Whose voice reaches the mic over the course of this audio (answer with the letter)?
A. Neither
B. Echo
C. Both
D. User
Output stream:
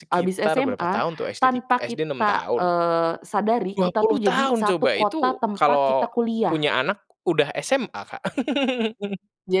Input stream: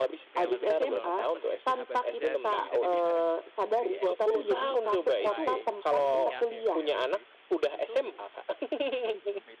C